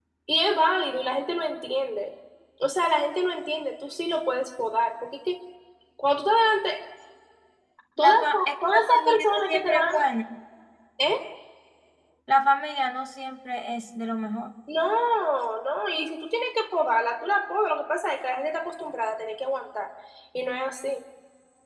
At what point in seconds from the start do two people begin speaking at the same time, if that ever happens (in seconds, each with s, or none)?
8.0 s